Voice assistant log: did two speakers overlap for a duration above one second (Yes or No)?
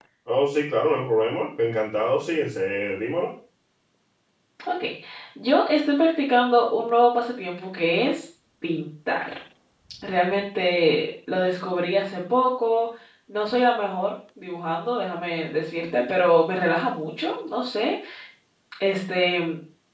No